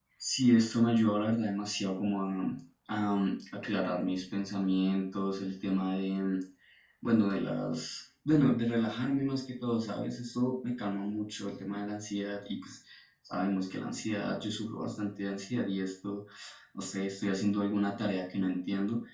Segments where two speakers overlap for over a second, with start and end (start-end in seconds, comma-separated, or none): none